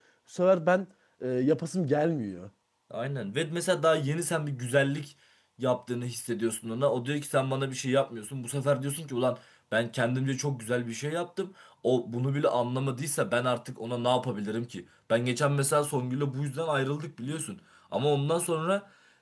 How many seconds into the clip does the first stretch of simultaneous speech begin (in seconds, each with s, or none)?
none